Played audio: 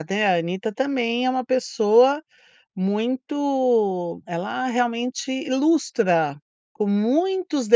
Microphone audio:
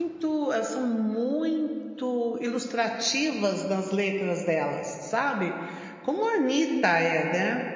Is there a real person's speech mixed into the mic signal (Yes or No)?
Yes